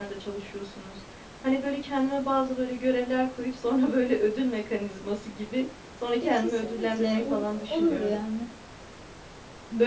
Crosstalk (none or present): present